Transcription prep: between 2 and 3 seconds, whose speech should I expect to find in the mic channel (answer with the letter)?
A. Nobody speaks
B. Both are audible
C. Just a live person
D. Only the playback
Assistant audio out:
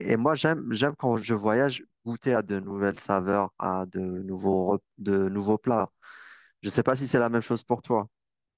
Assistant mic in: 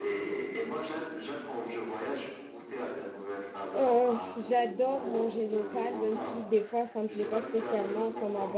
D